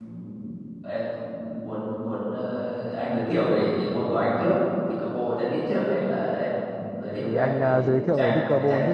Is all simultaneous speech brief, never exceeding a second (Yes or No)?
No